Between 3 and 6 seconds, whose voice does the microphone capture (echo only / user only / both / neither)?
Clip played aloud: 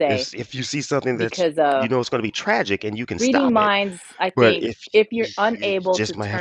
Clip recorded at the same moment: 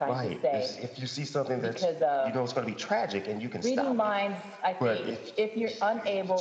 echo only